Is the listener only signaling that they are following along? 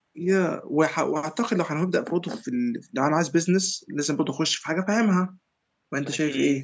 No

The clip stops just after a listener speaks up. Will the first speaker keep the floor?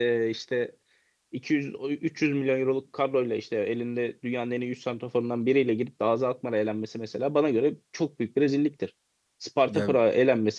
Yes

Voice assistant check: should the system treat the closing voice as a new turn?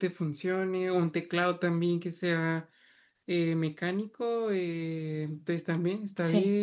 No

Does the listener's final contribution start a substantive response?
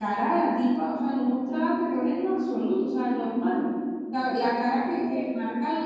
No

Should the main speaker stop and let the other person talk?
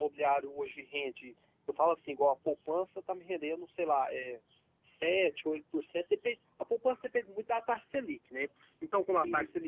No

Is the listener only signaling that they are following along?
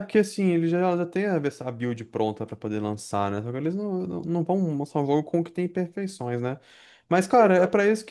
Yes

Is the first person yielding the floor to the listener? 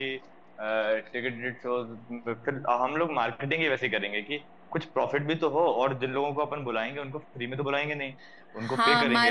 Yes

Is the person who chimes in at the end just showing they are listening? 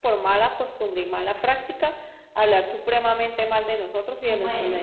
No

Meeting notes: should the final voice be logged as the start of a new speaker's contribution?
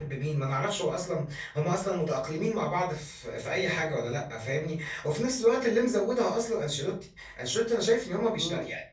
No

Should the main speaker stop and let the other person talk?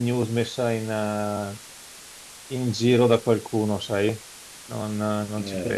Yes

